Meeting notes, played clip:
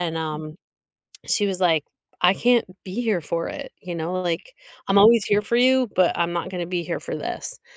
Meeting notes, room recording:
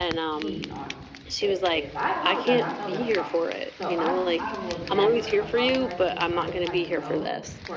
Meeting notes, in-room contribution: present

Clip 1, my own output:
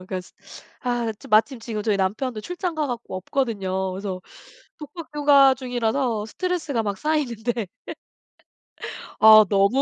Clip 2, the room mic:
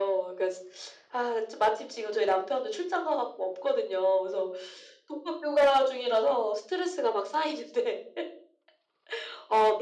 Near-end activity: none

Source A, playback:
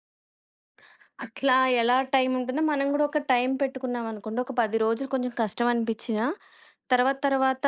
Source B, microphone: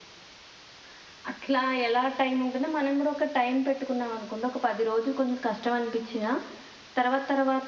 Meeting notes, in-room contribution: none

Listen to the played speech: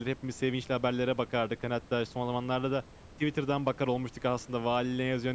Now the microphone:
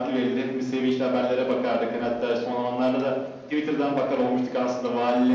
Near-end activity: none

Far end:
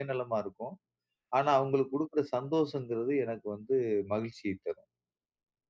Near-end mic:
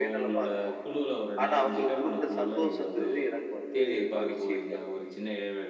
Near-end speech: present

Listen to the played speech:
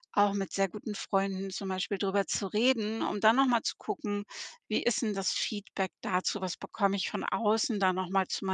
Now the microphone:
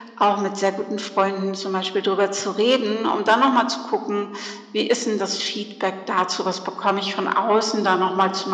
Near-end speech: none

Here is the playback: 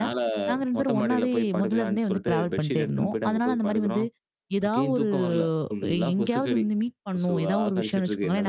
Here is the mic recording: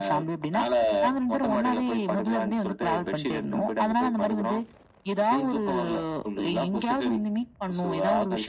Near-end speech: none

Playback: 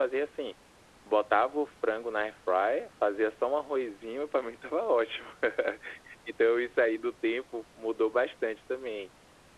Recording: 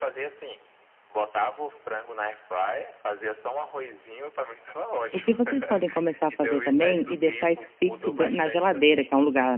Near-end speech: present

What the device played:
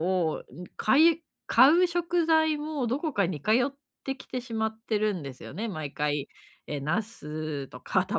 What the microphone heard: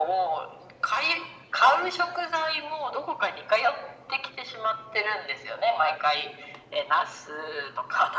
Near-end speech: none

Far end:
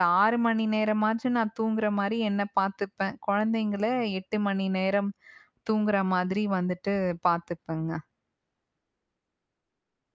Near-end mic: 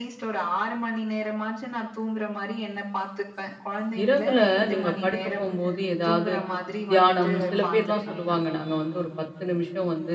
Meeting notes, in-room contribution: present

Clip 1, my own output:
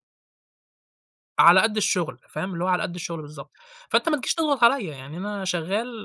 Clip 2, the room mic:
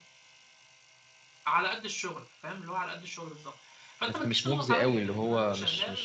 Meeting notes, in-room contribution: present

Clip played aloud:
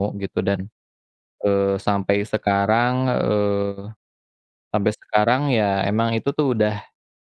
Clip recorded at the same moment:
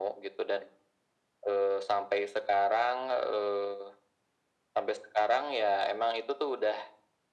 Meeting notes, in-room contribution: none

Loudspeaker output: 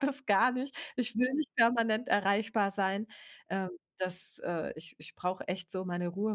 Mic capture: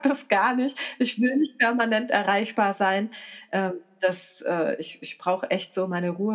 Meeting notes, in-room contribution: none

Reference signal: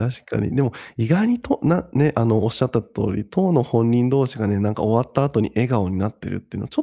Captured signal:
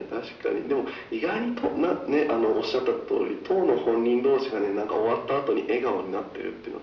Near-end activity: none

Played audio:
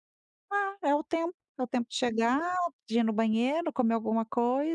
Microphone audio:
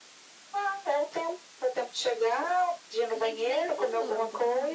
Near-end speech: present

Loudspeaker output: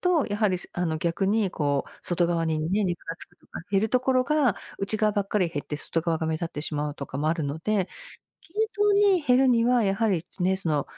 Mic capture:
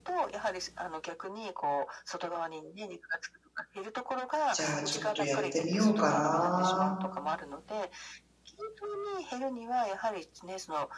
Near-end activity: present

